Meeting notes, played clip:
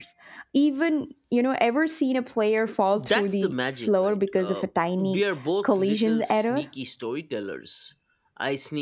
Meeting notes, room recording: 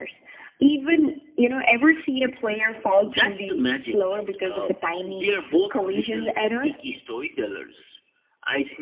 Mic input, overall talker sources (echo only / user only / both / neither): echo only